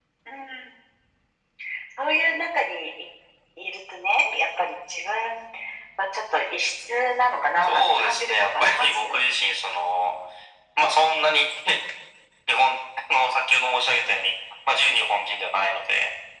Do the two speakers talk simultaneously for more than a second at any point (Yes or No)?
Yes